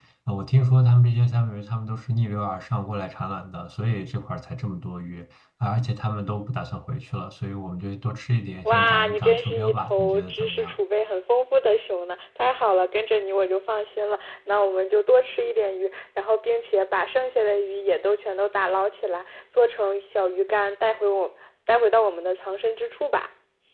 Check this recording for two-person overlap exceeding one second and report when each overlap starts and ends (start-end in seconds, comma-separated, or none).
8.7-10.8